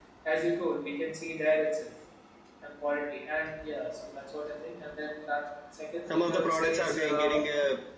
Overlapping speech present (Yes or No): Yes